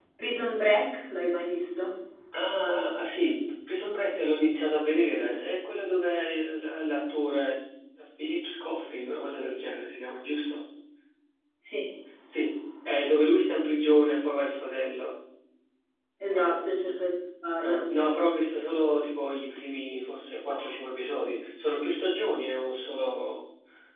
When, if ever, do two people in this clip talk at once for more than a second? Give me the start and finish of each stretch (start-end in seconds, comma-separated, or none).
none